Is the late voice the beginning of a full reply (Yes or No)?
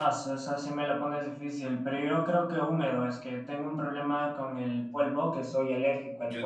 Yes